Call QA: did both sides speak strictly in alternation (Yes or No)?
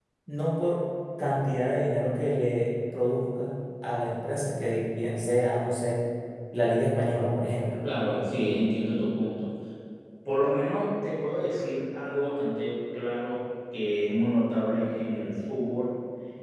Yes